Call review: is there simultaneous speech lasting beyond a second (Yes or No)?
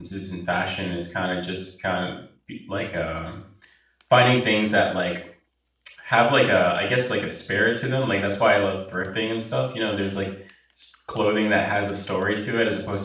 No